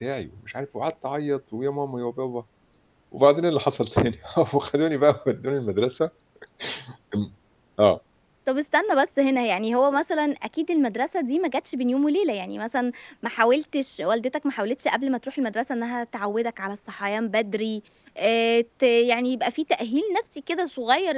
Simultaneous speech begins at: none

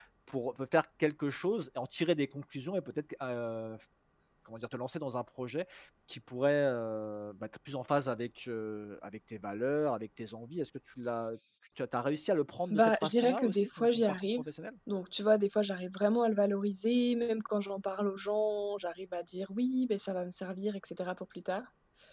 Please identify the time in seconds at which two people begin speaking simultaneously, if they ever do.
13 s

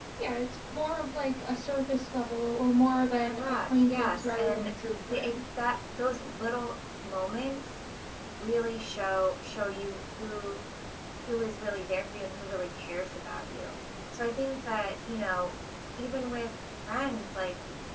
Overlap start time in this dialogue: 3 s

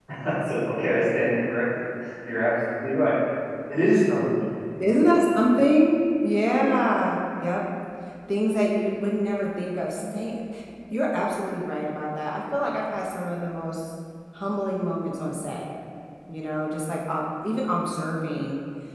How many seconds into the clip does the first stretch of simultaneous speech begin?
none

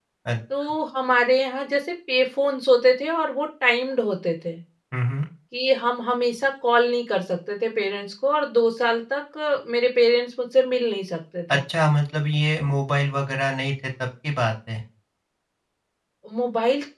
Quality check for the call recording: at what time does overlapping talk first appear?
none

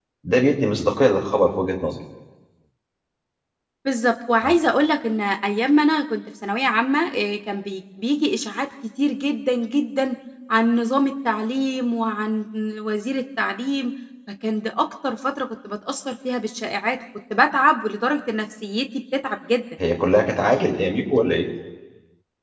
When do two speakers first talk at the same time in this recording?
none

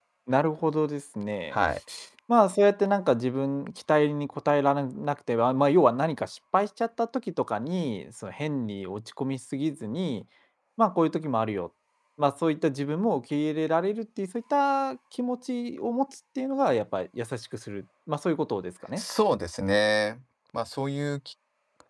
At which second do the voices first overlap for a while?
none

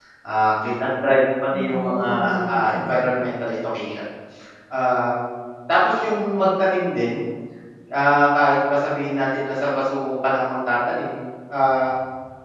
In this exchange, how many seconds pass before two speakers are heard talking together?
2 s

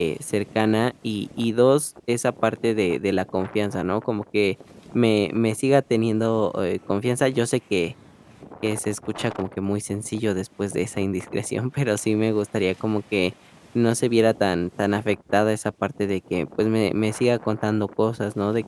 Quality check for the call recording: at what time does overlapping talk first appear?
none

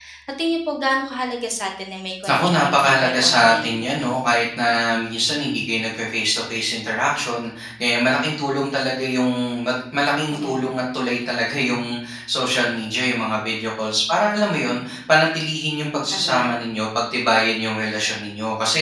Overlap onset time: 2 s

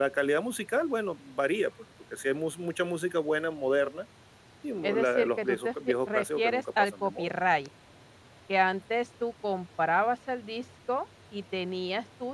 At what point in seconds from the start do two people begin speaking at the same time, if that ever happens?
5 s

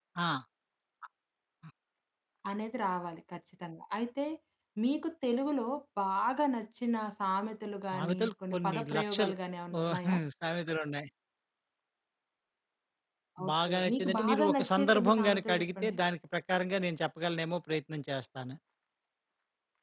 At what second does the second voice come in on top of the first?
8 s

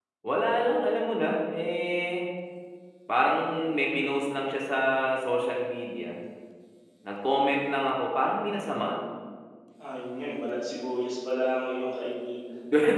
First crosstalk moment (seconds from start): none

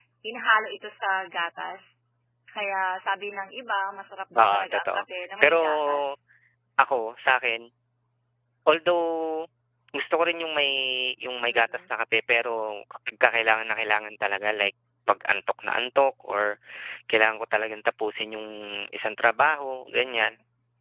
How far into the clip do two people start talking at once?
4 s

